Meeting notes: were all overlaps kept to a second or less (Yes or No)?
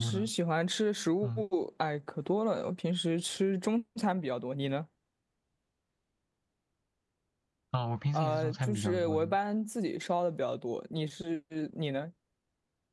No